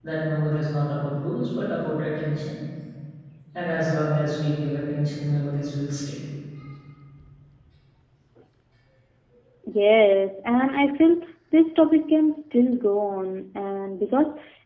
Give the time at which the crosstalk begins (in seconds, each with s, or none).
none